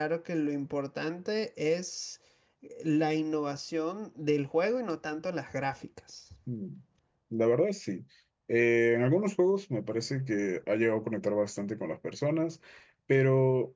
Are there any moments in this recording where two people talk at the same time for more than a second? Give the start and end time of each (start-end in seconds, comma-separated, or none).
none